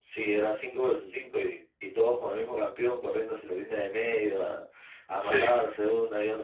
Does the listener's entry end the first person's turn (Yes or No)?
No